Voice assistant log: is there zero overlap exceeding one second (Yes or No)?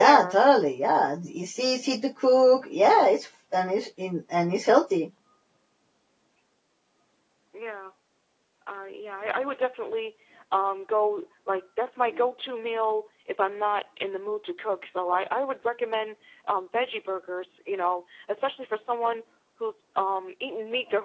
Yes